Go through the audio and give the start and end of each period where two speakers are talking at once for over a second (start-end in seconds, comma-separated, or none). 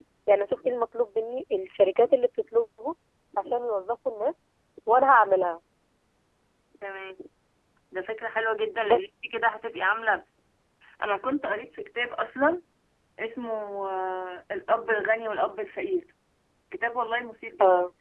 none